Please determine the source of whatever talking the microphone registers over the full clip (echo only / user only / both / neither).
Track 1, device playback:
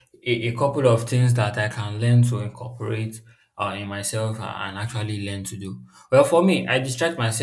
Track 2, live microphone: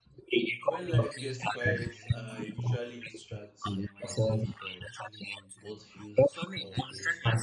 both